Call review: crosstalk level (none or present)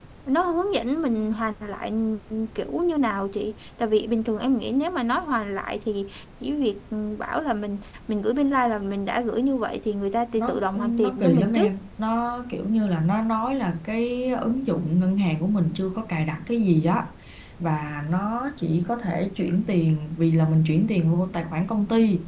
present